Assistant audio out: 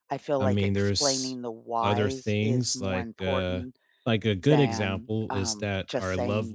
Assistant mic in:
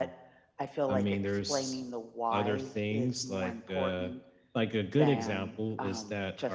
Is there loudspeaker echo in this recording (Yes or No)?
Yes